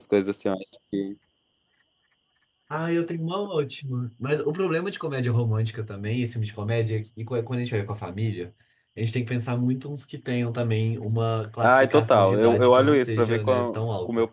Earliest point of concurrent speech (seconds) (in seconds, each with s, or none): 11.6 s